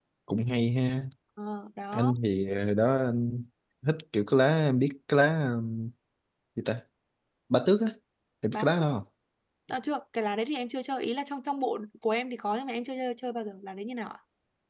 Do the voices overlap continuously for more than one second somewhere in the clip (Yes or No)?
No